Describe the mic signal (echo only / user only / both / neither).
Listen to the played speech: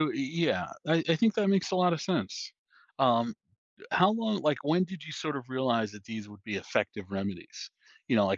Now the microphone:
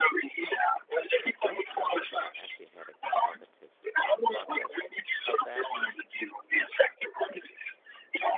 both